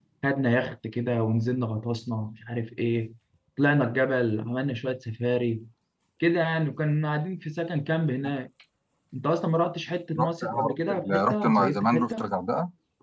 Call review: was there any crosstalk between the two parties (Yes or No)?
Yes